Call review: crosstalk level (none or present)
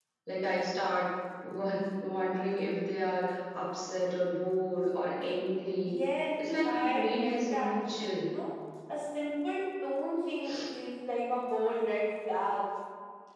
present